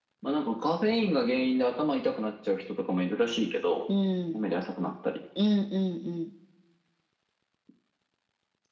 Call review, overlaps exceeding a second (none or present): none